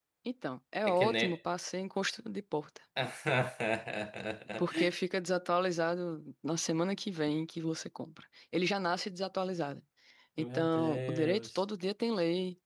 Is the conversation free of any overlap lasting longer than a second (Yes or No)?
No